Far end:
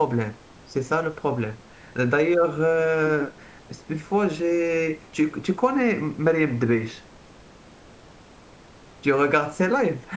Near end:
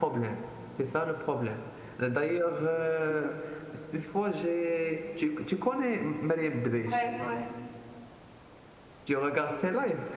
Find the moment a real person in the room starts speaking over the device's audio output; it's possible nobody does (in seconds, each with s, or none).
6.9 s